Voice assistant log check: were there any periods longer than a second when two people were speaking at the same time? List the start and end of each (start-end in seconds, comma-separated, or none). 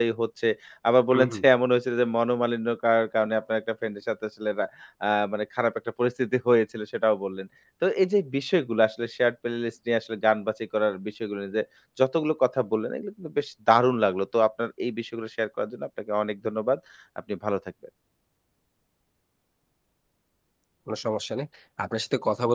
none